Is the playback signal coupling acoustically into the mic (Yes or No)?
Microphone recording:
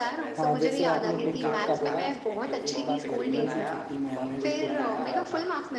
Yes